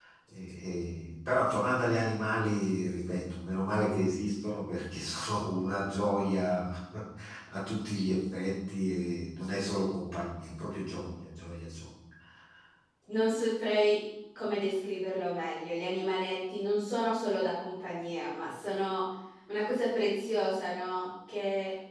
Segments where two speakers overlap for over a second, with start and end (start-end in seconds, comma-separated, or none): none